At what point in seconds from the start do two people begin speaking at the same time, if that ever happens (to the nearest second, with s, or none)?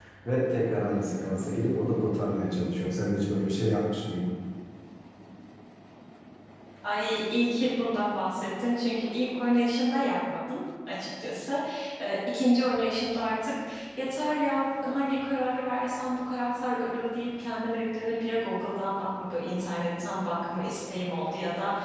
none